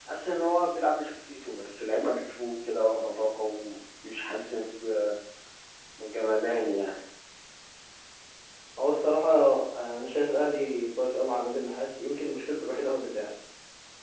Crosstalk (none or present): none